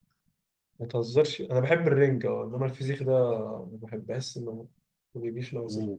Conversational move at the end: taking over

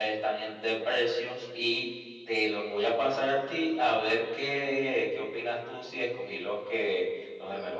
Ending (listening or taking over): taking over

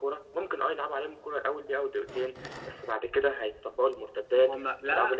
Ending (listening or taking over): taking over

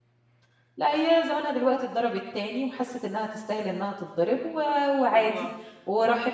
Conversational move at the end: listening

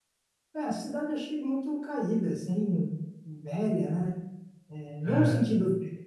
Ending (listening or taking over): listening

